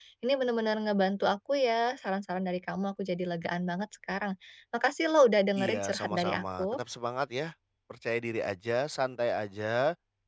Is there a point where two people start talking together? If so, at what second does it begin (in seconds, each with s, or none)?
5.6 s